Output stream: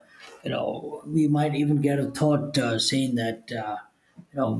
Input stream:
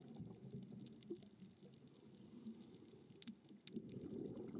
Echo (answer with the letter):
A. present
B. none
B